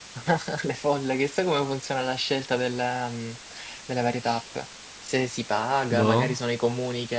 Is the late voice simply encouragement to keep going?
Yes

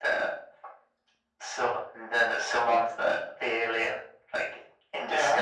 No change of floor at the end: Yes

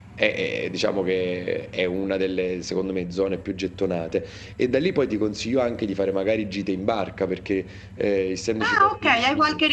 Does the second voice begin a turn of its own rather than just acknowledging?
Yes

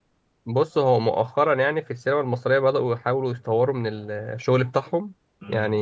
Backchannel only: Yes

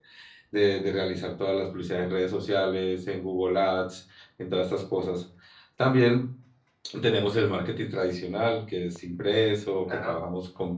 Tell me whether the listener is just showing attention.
Yes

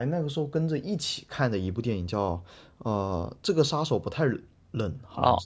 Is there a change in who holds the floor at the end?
Yes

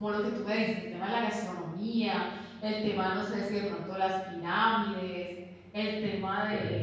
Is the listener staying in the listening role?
Yes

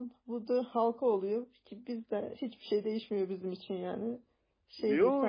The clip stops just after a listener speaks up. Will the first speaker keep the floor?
No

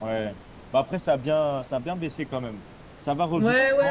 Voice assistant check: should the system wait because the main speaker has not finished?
No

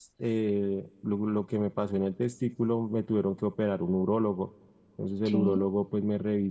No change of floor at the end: Yes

